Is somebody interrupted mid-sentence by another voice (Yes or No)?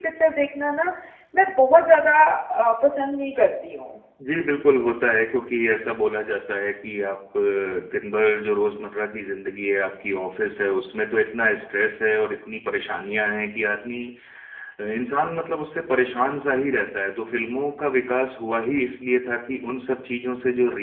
No